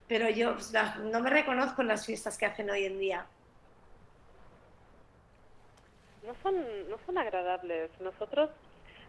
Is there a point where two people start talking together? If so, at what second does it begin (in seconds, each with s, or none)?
none